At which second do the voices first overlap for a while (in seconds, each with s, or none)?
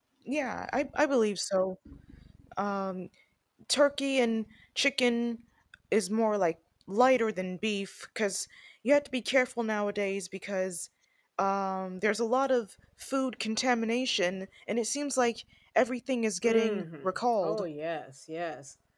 16.4 s